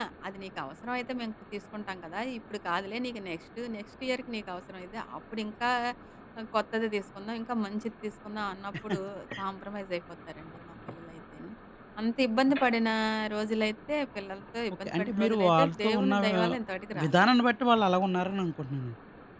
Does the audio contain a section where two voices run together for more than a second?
Yes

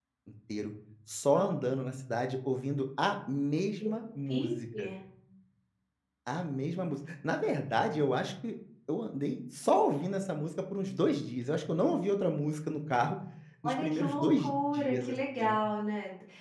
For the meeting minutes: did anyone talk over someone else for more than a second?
Yes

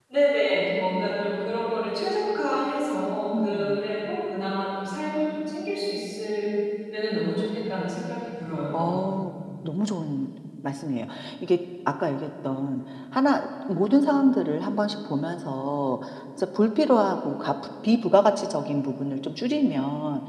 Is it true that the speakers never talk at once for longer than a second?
Yes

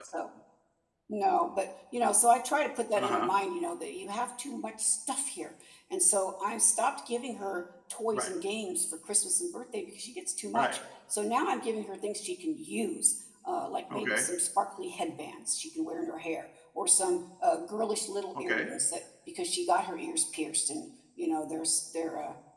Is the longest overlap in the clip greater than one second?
No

